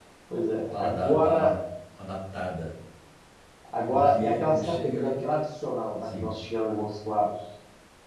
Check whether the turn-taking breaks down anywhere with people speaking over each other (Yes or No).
Yes